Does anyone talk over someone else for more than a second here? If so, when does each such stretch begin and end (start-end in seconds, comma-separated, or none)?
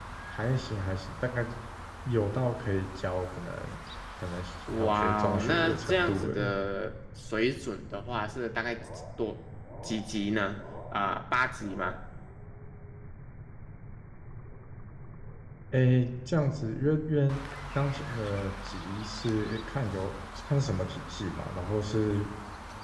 4.7-6.6